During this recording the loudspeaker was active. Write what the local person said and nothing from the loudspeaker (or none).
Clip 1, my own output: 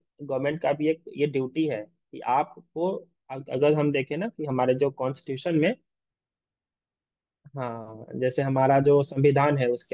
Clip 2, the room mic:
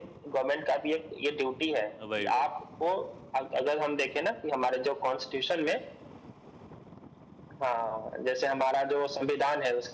वही वही